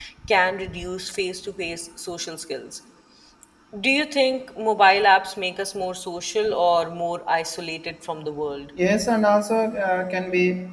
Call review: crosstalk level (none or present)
none